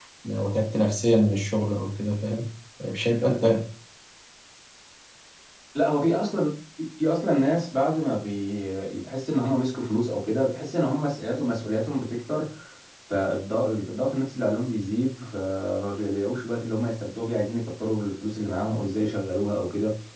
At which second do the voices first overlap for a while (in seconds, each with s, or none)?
none